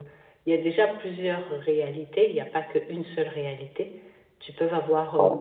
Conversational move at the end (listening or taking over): listening